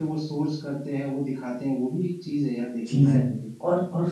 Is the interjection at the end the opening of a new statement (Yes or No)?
Yes